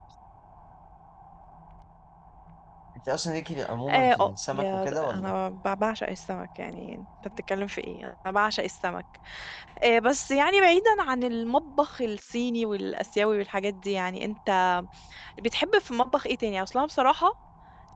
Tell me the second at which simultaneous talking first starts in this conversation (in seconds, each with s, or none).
3.9 s